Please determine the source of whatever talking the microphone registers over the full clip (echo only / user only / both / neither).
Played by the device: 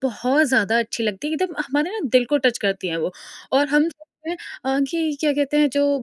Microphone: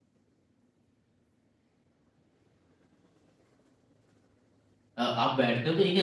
user only